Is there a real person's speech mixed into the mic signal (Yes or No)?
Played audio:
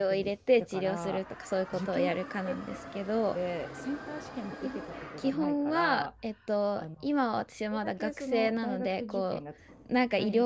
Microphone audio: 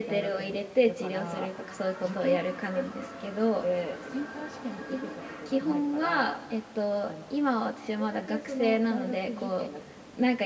No